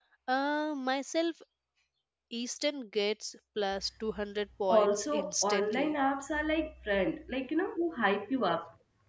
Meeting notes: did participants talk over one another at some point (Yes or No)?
Yes